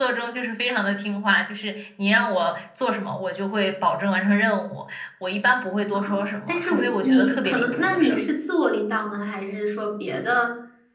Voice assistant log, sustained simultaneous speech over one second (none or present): present